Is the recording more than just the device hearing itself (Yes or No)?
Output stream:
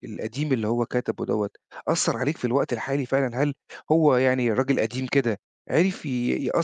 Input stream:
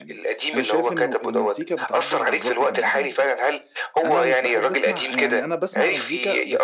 Yes